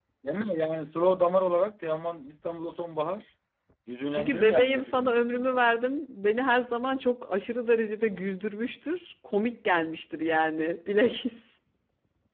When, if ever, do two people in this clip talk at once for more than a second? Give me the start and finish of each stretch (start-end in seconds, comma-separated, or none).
4.1-5.7